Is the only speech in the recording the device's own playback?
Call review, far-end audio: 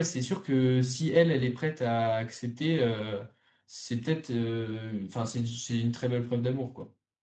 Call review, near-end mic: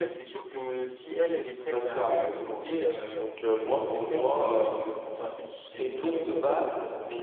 No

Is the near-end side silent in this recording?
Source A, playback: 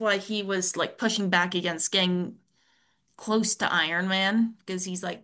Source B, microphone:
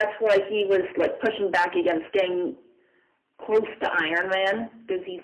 Yes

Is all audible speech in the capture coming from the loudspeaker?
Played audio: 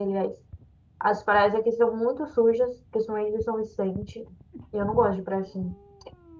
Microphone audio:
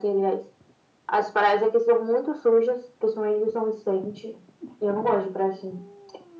Yes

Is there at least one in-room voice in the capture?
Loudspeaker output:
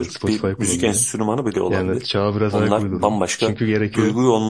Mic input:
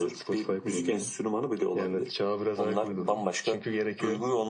No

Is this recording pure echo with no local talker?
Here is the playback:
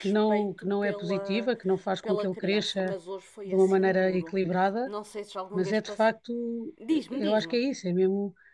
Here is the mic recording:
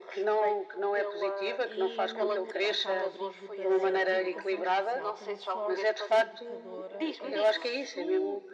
No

